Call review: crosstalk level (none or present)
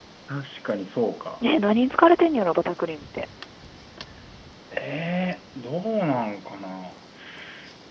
none